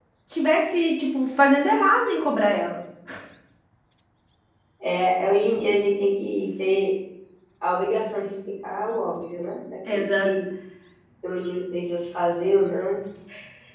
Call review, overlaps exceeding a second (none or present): none